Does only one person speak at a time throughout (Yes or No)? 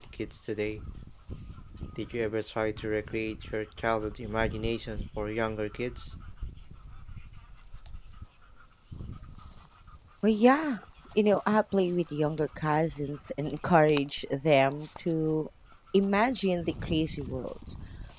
Yes